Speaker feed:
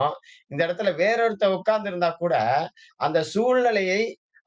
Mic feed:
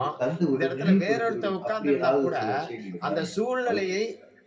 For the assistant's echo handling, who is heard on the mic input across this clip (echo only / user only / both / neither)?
both